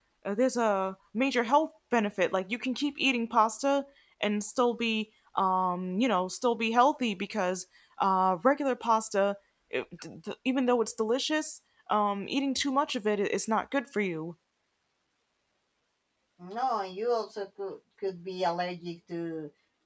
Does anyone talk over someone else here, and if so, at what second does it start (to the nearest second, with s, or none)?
none